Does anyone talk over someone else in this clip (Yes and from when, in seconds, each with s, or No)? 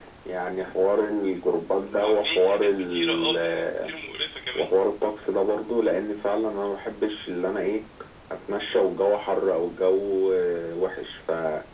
Yes, from 2.0 s